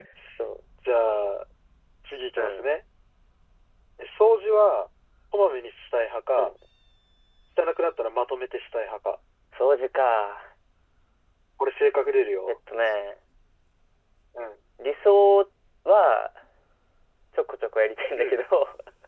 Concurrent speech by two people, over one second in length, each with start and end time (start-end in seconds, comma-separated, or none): none